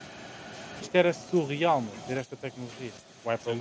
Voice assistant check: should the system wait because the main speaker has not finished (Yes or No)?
No